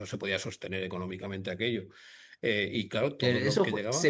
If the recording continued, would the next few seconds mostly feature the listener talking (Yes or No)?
Yes